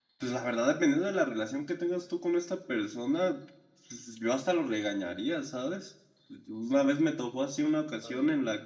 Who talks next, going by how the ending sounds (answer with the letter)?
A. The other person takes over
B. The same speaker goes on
B